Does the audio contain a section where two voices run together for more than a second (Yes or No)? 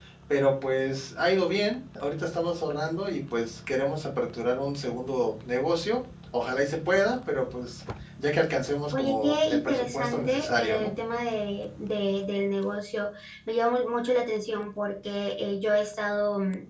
Yes